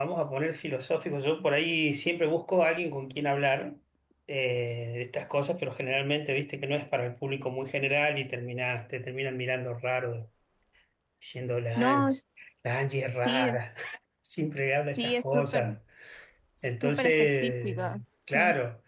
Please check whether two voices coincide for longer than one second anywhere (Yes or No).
Yes